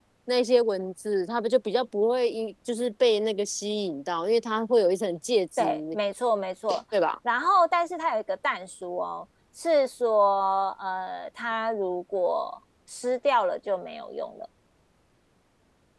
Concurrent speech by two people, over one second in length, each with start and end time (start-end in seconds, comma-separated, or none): none